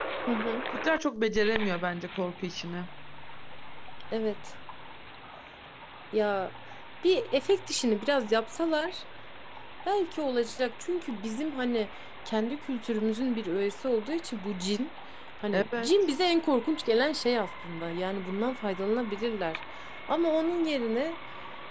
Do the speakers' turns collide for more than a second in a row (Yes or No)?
No